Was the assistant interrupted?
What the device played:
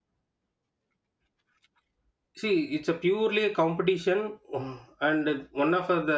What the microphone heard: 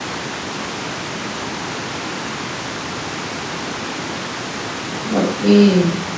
Yes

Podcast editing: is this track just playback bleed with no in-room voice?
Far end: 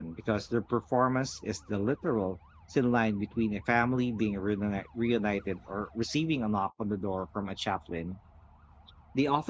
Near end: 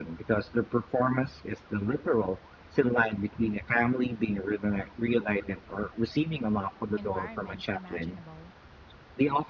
No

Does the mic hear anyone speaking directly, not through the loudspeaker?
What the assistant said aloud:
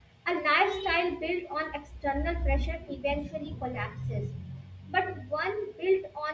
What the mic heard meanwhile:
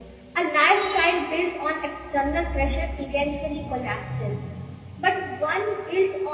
No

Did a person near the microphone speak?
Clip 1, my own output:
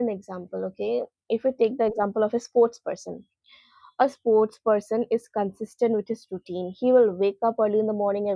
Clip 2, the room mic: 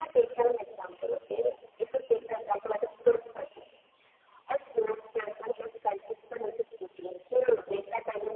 No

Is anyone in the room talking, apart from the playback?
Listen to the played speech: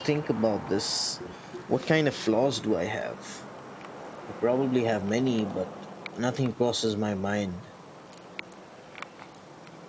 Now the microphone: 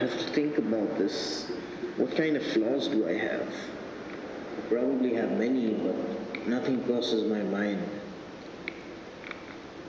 No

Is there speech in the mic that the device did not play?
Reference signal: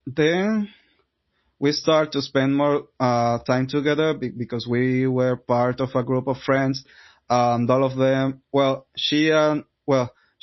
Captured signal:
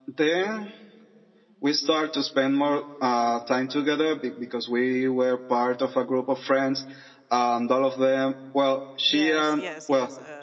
Yes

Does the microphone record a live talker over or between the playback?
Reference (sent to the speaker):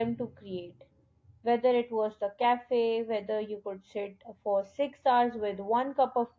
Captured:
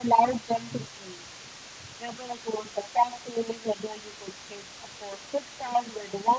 No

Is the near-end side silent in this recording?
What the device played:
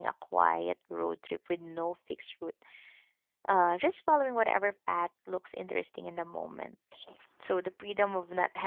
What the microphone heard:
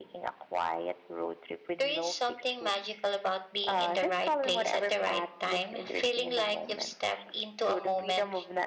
No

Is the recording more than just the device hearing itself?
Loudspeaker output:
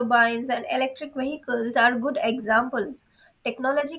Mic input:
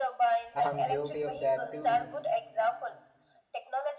Yes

